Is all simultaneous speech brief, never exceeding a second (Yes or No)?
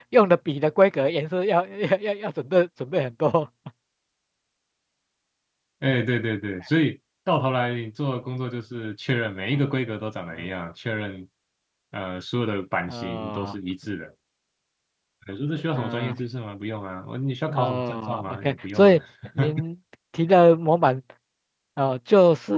No